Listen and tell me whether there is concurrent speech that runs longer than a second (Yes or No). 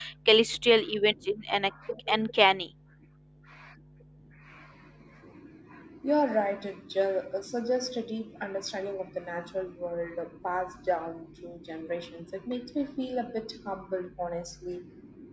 No